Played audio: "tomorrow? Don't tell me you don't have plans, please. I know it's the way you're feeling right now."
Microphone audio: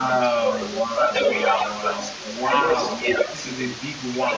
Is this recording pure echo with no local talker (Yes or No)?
No